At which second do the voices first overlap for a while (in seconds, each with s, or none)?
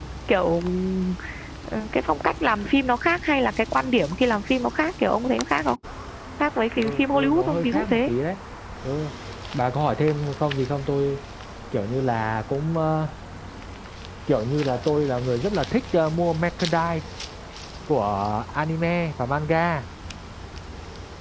6.8 s